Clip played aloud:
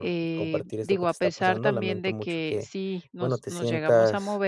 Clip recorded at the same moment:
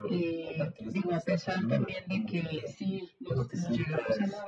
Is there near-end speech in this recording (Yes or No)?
No